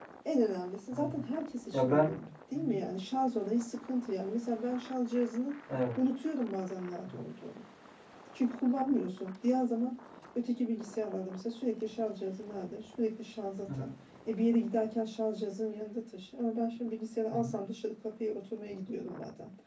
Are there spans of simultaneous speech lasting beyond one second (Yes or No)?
No